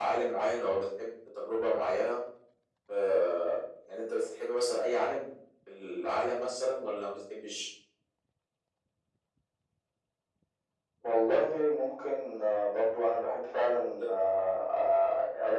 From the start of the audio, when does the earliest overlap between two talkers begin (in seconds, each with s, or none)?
none